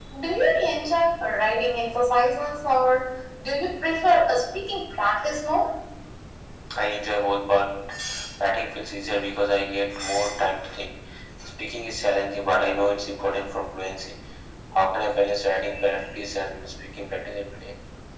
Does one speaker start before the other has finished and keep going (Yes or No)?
No